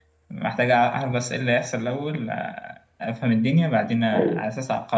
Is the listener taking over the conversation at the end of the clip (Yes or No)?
No